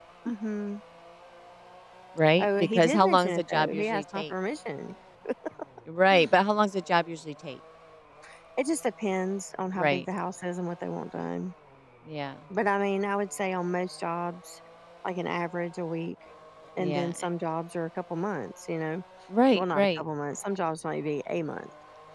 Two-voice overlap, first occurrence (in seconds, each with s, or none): 2.4 s